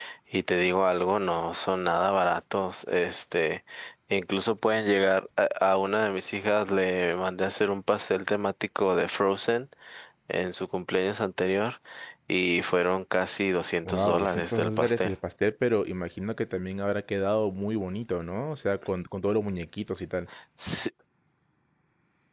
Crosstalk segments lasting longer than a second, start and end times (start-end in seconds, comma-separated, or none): 13.8-15.1